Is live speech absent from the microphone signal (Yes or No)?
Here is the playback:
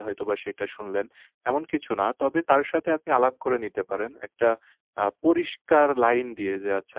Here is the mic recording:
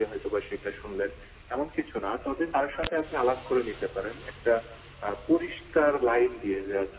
Yes